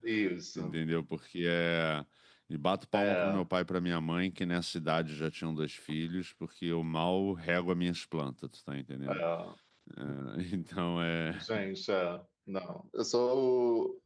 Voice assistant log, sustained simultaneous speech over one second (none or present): none